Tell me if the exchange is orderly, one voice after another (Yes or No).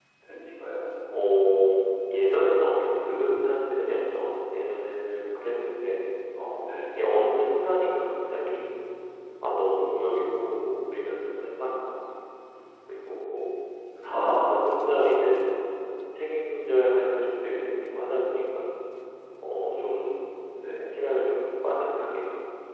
Yes